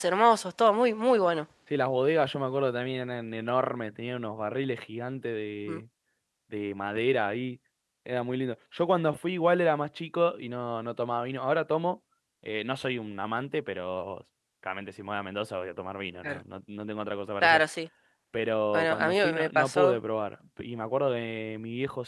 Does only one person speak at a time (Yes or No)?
No